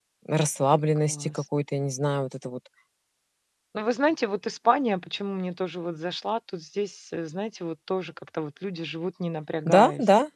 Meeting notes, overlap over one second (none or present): none